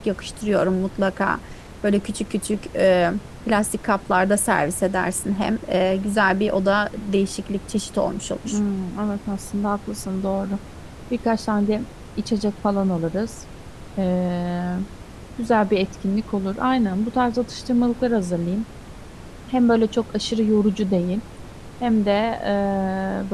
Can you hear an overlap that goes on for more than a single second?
No

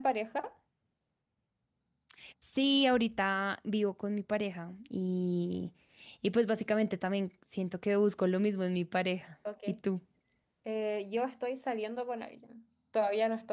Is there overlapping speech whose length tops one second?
No

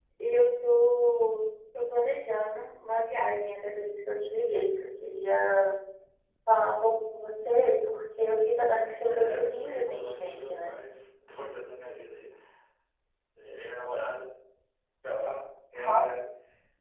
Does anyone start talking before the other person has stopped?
Yes, from 9.0 s

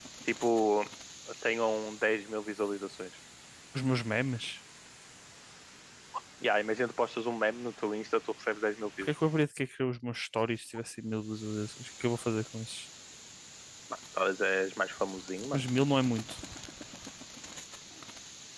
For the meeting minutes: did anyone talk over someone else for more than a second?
No

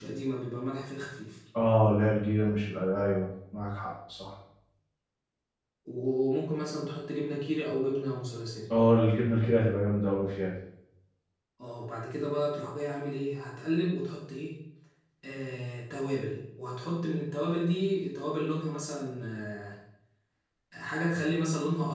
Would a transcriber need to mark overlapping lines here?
No

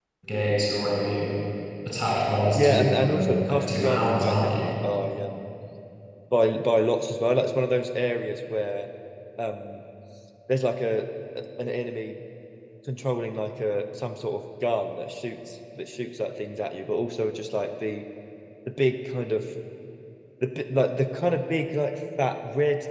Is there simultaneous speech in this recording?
Yes, from 2.6 s

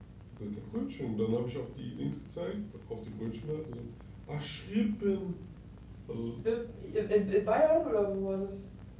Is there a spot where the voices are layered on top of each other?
No

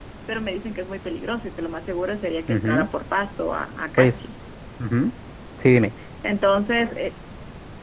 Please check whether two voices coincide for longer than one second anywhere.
No

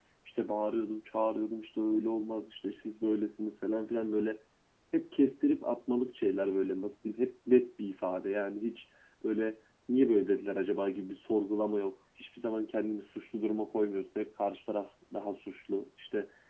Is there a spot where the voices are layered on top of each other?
No

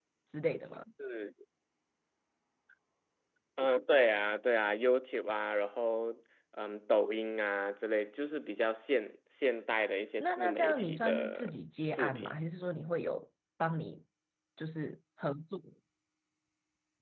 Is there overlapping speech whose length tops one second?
Yes, from 10.2 s

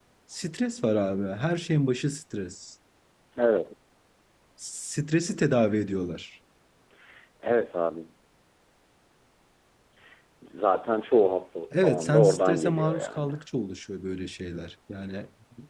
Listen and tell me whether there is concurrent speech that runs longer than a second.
Yes, from 11.7 s

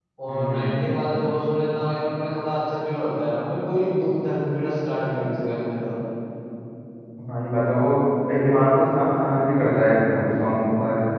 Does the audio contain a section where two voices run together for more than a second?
No

